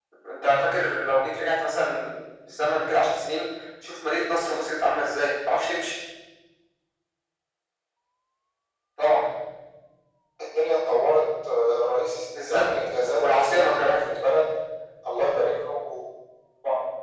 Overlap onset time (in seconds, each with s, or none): 12.3 s